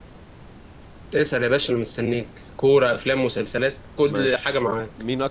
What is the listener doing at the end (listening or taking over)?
taking over